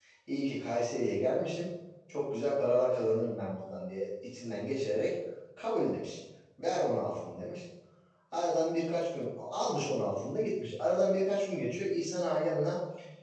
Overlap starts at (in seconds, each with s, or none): none